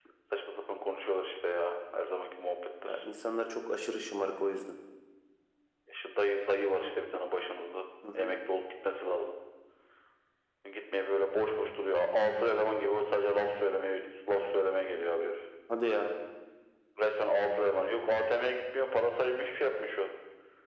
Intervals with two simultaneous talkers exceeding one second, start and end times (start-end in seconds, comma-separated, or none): none